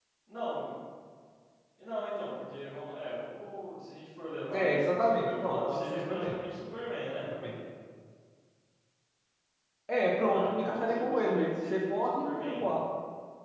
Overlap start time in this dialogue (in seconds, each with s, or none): 4.5 s